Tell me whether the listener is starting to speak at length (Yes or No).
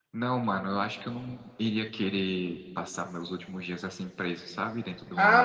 Yes